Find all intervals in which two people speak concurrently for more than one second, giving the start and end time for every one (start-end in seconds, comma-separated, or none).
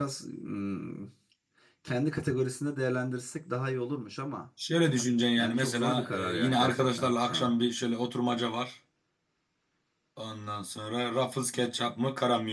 5.4-7.5